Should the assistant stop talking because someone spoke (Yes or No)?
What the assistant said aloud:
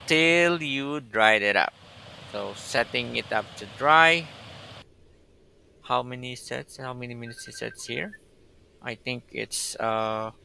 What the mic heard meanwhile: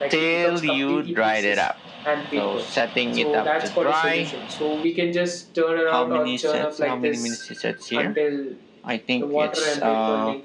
Yes